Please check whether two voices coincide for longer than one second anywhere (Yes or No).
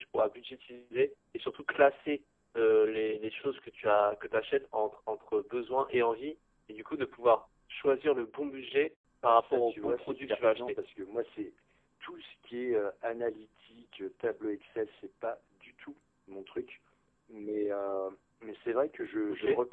Yes